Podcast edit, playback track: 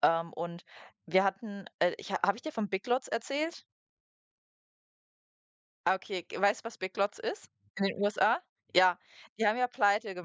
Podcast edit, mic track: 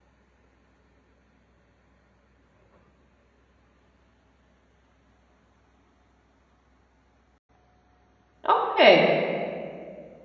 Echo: none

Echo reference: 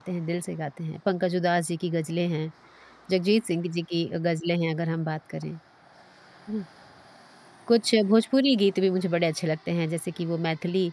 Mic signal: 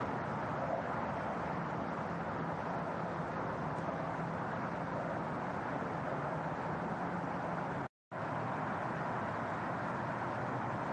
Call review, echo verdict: none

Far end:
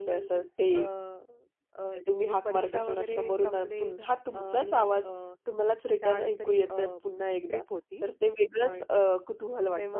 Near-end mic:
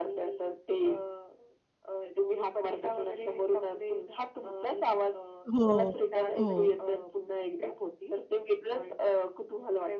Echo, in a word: present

